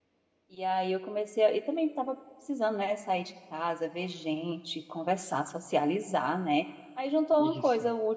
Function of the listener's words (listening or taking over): listening